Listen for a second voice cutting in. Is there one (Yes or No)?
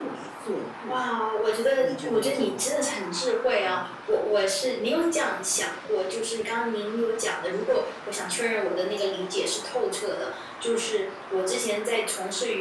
Yes